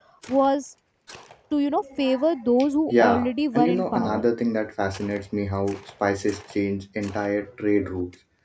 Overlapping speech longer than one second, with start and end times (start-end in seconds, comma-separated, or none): 2.9-4.2